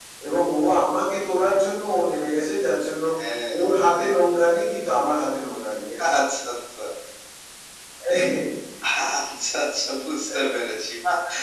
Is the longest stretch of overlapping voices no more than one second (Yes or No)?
Yes